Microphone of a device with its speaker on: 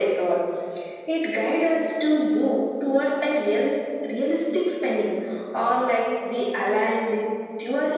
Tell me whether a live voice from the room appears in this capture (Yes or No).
No